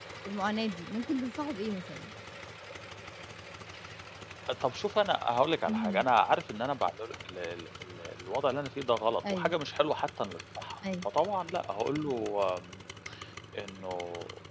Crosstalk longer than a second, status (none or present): none